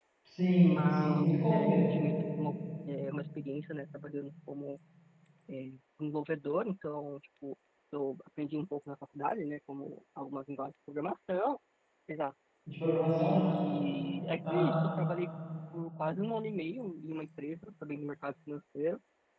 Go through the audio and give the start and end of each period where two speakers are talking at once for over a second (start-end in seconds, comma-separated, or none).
0.6-1.9